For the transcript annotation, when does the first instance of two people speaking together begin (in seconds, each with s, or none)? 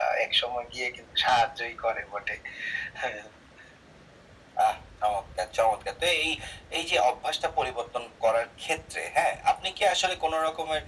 none